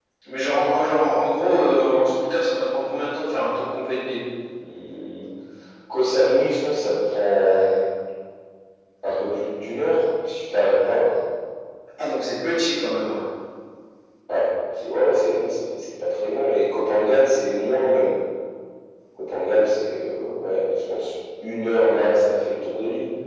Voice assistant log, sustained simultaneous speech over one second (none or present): none